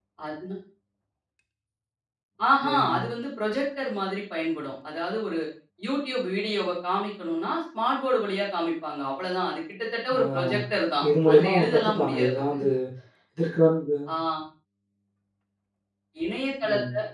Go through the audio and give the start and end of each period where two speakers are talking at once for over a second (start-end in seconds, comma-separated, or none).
11.0-12.4